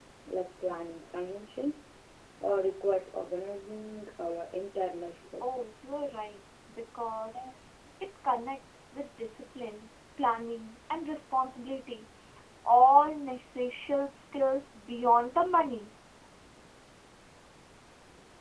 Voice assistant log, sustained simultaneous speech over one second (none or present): none